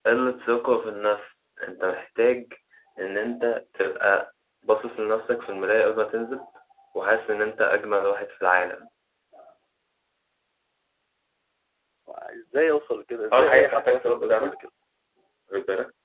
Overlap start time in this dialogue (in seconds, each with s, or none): 13.3 s